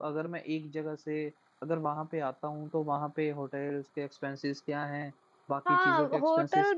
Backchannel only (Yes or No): No